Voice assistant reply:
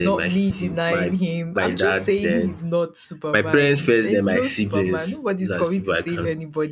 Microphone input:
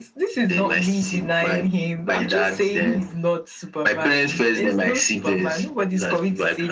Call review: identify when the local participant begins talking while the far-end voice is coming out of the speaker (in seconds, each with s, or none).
none